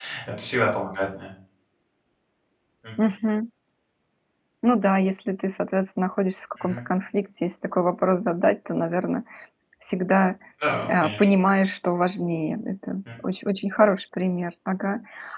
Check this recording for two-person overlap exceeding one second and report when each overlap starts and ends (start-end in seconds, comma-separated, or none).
none